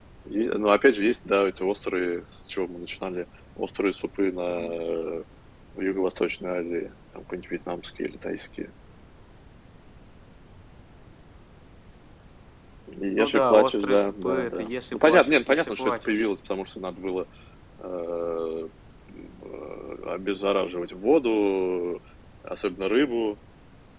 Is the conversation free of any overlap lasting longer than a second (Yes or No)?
No